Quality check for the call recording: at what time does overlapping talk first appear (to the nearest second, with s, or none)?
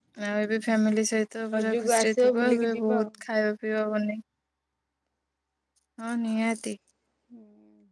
2 s